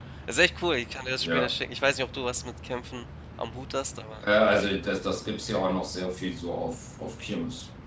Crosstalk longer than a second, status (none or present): none